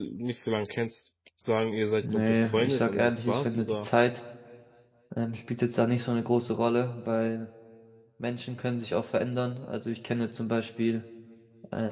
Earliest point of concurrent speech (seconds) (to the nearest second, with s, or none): 2 s